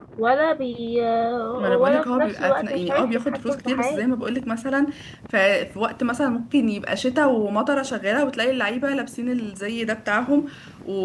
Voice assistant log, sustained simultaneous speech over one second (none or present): present